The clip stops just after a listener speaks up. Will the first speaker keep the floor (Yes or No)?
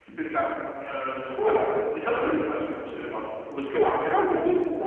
No